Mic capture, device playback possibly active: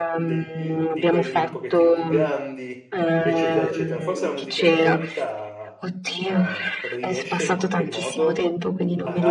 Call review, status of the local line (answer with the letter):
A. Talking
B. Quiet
A